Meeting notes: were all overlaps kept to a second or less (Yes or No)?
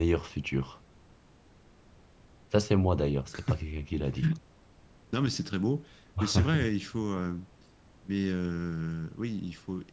Yes